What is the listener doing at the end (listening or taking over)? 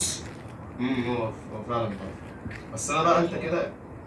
listening